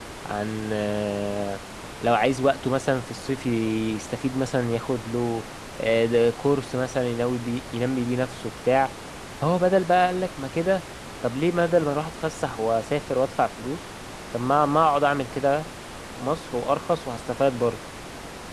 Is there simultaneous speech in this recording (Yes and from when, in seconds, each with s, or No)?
No